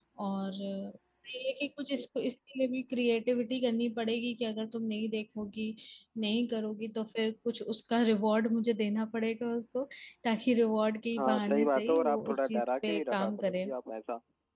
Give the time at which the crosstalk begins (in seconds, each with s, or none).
11.2 s